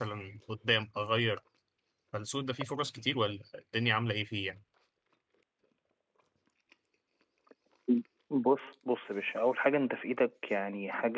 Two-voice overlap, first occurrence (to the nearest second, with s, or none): none